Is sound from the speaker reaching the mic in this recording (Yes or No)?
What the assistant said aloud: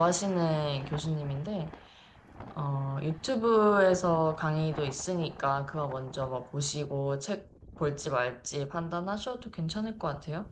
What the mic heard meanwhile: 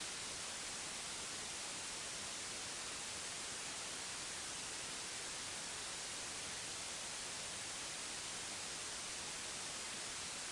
No